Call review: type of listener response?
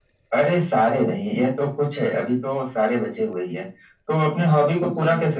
listening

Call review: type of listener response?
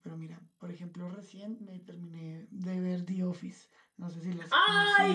taking over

